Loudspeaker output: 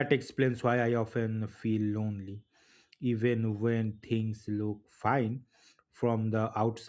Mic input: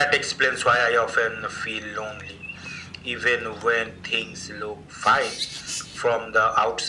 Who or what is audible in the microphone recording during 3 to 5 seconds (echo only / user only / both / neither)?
echo only